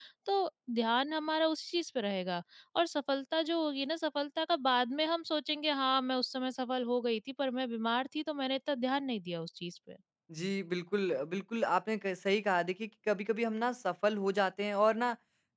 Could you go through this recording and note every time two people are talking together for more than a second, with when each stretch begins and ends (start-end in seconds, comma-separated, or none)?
none